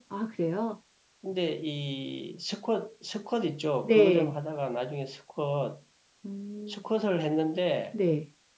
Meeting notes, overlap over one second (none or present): none